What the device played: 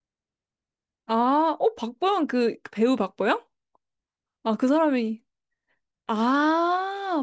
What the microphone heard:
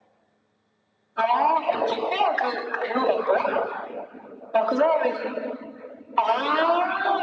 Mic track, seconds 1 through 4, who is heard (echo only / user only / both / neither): echo only